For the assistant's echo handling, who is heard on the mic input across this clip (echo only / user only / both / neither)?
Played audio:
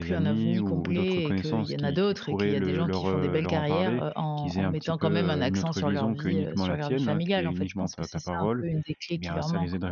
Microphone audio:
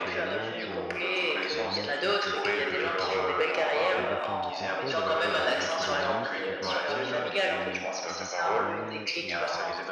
both